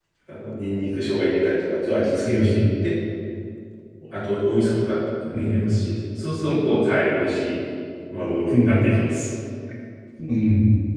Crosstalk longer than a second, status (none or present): none